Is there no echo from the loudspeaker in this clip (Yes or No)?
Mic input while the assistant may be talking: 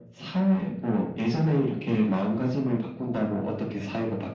No